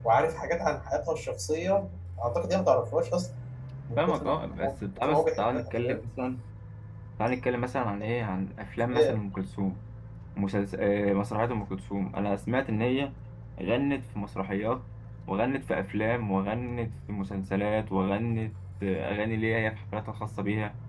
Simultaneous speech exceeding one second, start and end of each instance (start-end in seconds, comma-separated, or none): 4.0-5.7